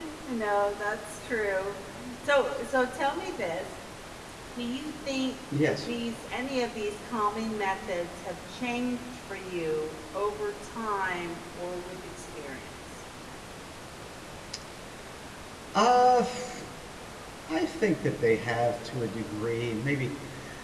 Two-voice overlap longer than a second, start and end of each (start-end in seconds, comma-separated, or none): none